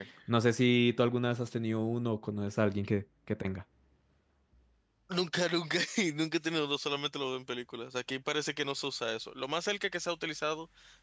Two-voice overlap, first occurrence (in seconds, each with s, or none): none